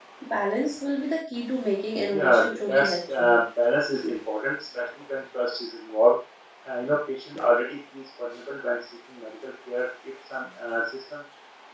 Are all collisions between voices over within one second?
No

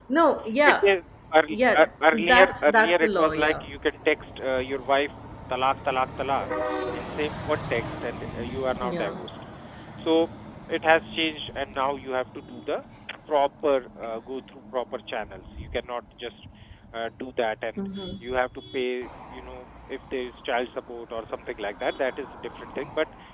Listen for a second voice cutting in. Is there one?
Yes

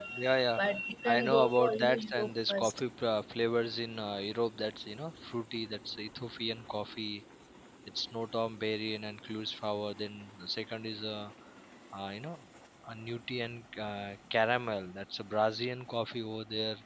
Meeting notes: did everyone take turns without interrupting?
No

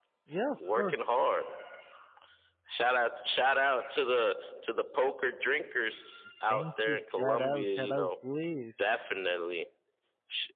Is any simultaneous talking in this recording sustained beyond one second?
Yes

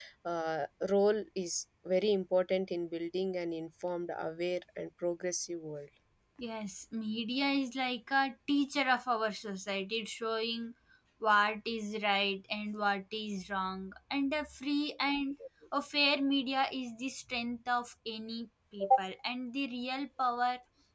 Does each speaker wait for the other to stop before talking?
Yes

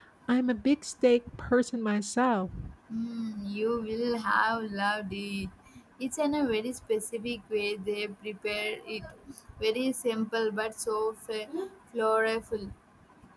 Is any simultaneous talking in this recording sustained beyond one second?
No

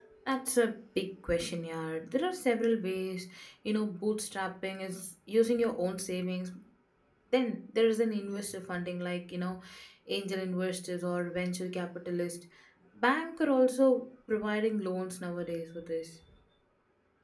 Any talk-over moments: No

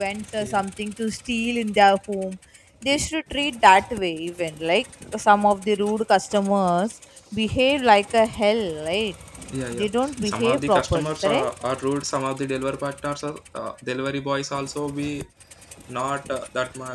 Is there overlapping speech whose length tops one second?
Yes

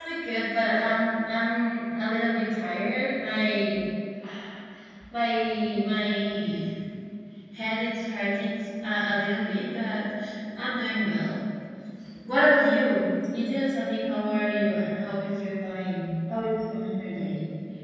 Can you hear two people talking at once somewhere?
No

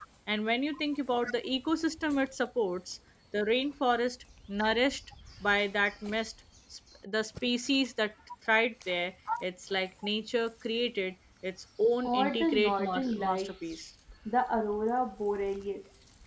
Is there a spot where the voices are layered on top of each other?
Yes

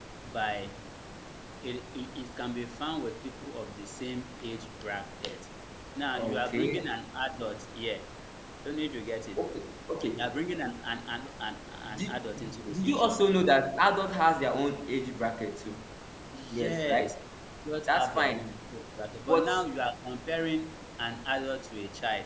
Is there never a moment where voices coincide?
No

